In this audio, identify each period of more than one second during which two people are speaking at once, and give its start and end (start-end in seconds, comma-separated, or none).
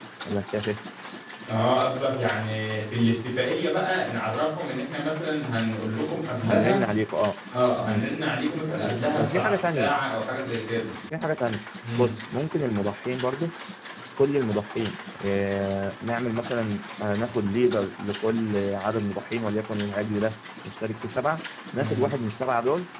8.6-10.0